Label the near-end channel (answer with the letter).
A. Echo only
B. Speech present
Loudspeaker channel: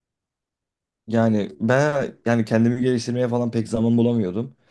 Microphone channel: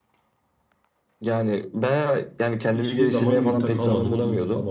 B